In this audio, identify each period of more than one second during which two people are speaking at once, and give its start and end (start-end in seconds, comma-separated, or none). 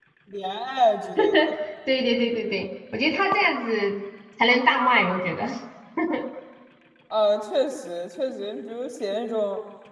none